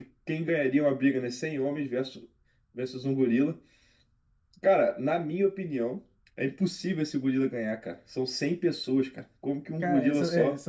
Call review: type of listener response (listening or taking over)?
taking over